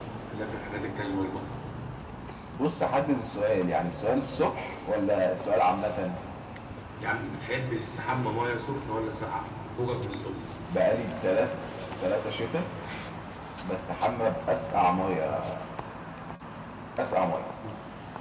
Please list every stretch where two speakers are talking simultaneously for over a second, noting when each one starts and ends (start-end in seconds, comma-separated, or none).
none